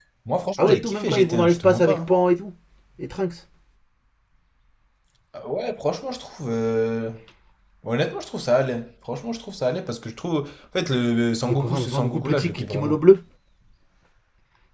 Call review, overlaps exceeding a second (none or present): present